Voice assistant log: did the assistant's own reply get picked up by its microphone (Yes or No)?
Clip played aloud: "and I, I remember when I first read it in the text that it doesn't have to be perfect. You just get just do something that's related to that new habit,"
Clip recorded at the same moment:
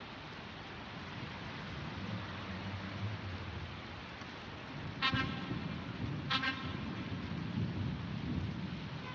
No